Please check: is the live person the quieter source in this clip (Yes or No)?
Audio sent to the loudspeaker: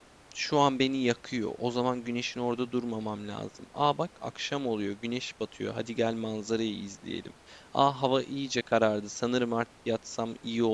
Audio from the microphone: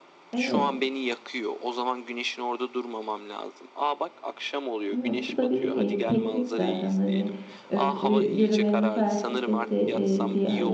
No